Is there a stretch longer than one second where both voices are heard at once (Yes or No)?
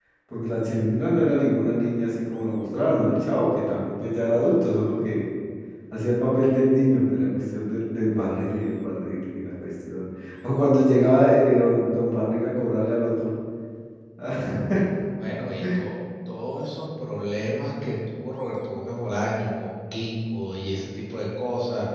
No